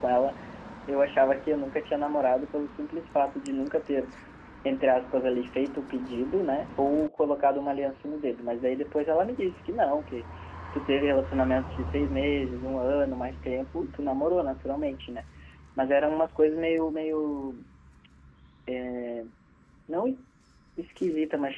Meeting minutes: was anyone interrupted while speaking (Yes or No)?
No